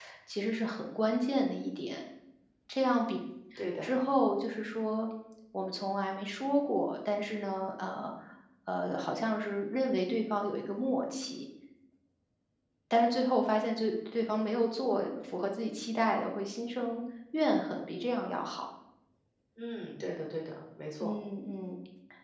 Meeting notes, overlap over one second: none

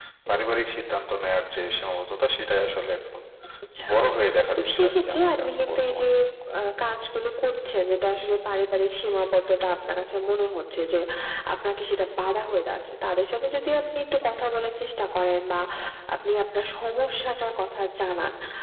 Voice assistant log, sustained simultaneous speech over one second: present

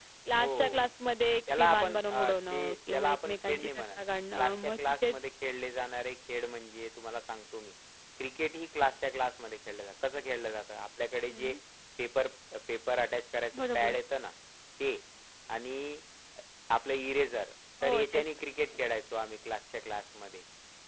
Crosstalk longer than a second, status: present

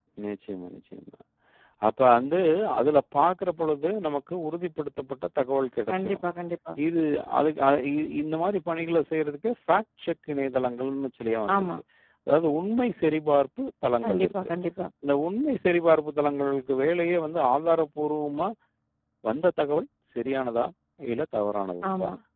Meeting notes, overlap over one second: none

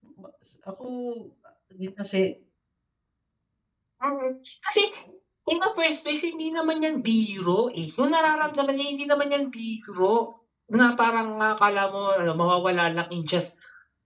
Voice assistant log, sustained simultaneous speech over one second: none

